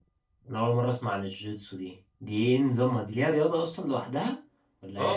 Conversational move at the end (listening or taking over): taking over